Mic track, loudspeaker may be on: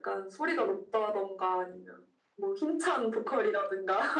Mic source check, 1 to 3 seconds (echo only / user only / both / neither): echo only